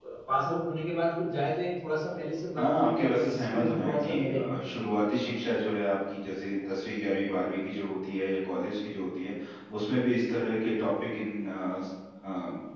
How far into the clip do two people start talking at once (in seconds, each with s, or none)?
2.6 s